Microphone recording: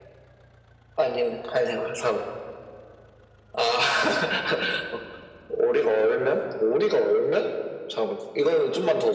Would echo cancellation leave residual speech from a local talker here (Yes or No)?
No